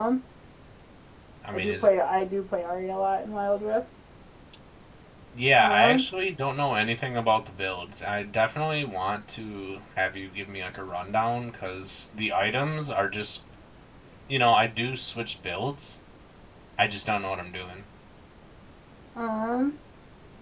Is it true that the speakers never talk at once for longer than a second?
Yes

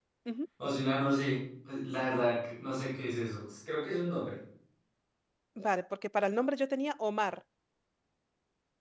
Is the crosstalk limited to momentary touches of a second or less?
Yes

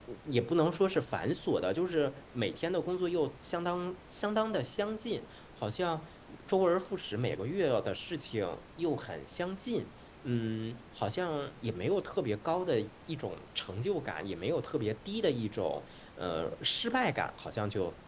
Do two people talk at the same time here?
No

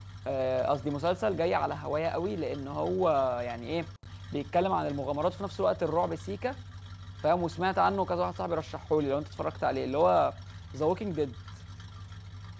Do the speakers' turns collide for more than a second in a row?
No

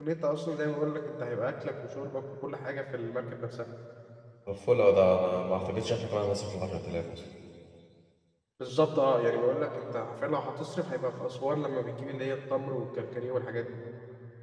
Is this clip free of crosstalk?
Yes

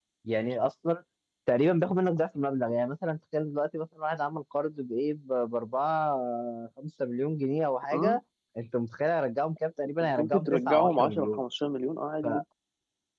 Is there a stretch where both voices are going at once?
Yes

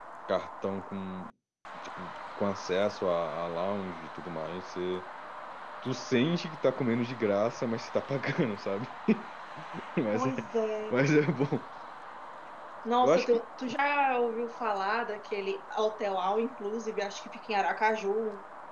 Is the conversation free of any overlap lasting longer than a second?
Yes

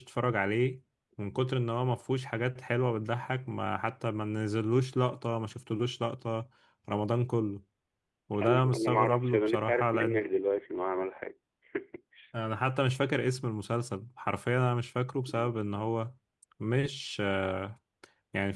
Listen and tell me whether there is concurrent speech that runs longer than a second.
Yes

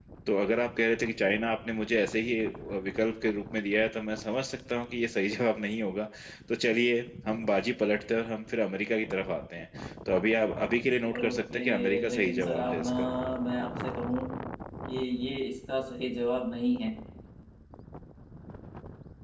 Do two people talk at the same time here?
Yes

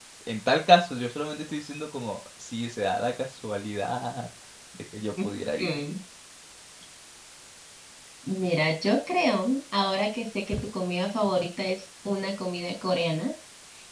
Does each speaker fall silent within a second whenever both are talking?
Yes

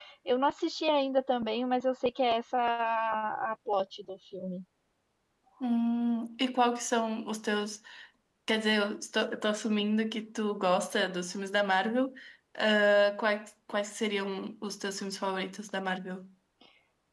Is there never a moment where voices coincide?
Yes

